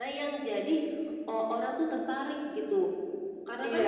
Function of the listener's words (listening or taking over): taking over